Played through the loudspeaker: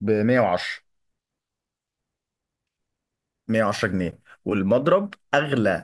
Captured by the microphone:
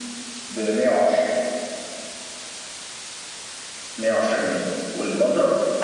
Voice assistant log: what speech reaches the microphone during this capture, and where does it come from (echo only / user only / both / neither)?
echo only